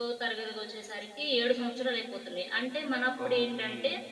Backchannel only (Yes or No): Yes